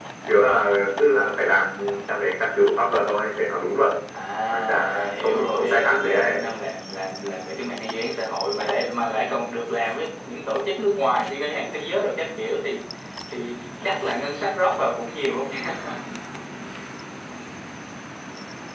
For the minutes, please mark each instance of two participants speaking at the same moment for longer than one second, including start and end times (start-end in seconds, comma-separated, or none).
4.8-6.2